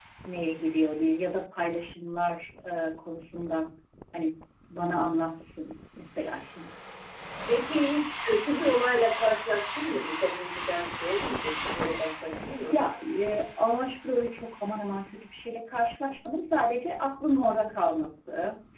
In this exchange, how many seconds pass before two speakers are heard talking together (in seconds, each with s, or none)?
none